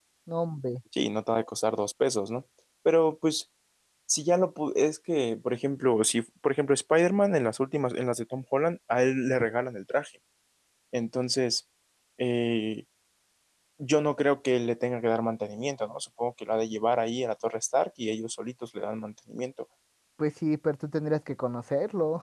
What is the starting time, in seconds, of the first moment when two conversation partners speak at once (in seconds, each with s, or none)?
none